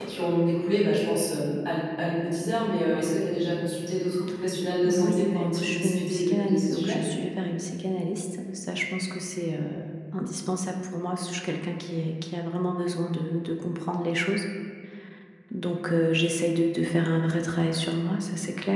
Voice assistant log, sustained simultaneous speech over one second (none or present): present